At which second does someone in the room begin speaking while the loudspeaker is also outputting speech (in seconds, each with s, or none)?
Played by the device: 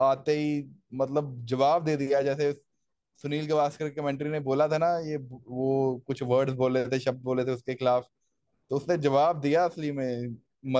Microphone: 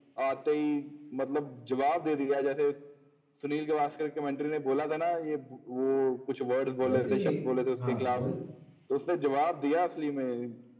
6.8 s